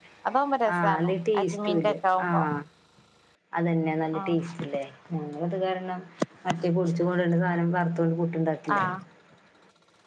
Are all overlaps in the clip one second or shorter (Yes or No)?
No